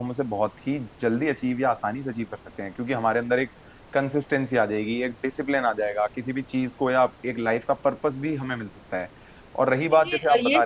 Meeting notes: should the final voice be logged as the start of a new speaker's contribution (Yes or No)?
Yes